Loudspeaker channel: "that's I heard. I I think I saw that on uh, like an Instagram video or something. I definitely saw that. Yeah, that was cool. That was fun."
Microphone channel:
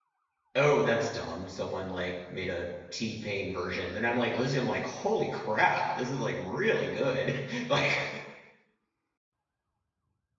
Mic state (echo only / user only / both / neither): user only